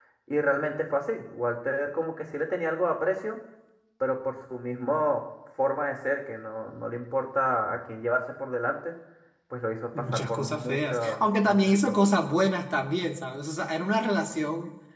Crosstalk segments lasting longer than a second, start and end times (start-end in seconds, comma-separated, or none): 10.0-11.9